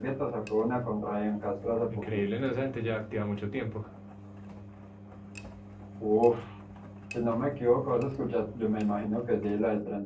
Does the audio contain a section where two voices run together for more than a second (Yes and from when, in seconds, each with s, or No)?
No